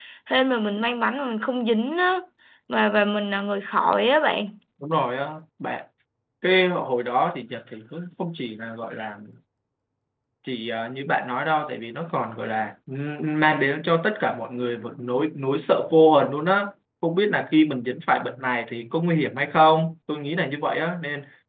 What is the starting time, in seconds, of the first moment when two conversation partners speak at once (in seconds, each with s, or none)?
none